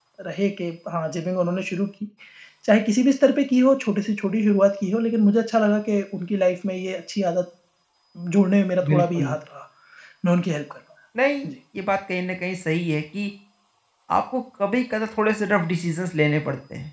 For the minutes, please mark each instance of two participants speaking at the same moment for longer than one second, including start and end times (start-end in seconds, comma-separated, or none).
none